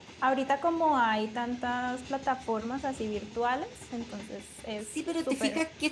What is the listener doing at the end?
taking over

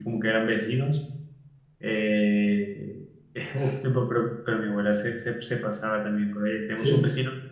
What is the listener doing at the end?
listening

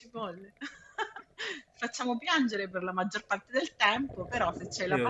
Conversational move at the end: taking over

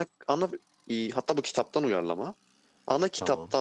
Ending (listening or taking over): listening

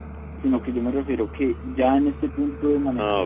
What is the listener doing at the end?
listening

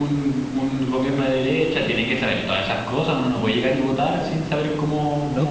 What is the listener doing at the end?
taking over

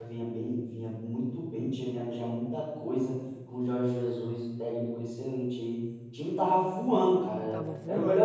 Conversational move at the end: listening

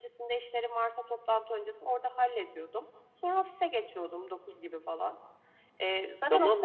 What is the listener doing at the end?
taking over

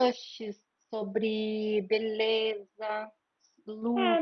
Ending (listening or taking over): taking over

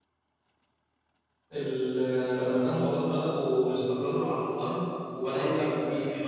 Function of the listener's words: taking over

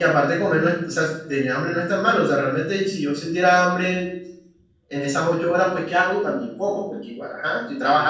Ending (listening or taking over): listening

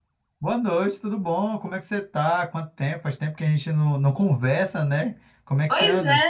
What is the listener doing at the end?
taking over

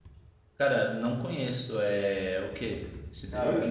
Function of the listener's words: taking over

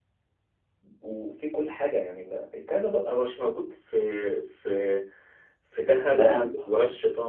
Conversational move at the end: listening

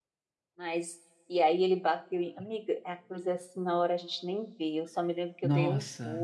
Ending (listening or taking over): listening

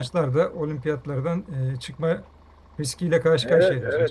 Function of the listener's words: taking over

